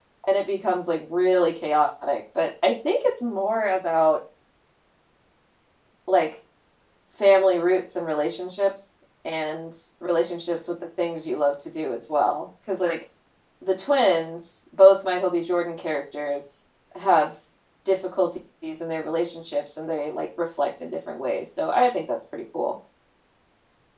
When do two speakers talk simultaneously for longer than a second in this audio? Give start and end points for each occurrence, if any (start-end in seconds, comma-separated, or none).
none